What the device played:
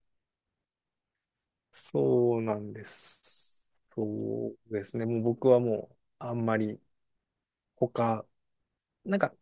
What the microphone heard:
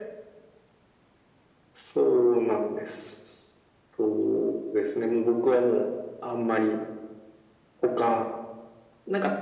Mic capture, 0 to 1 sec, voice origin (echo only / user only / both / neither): neither